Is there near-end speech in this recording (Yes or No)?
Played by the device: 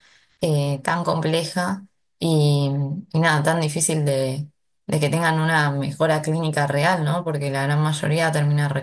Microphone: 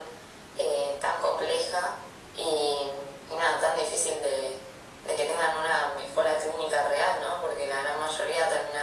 No